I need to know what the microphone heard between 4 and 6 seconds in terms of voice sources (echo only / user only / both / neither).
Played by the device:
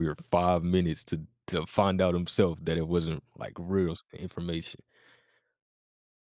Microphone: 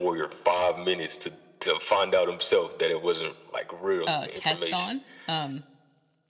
both